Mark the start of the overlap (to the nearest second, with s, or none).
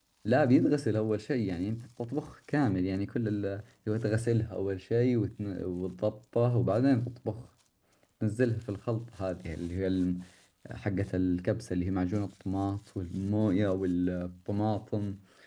none